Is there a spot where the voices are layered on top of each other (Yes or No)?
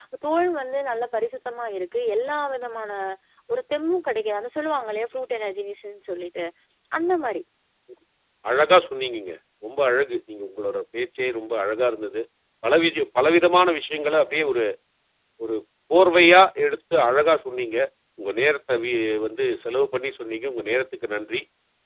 No